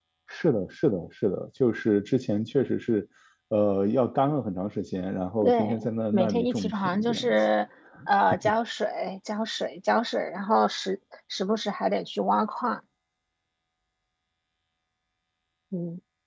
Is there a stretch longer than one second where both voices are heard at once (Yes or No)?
Yes